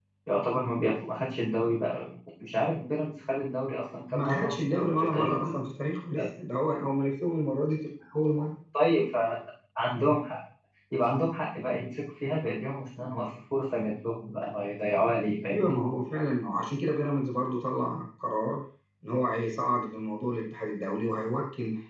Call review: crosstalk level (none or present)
present